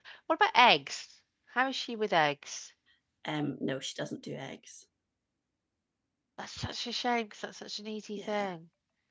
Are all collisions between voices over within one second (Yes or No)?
Yes